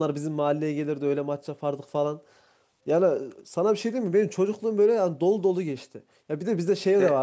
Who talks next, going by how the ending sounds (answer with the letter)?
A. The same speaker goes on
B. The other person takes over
A